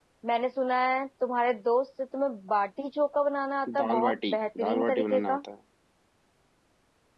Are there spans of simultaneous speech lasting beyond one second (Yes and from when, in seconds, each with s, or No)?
Yes, from 3.7 s